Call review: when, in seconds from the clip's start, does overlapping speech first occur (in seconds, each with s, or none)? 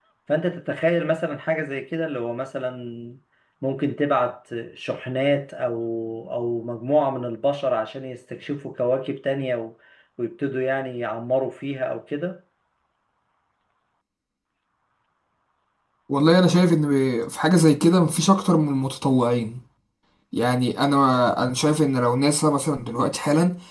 none